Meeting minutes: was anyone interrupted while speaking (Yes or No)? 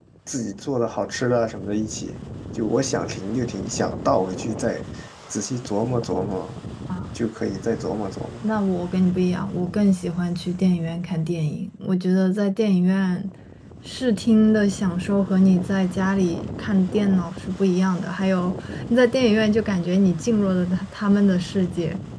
No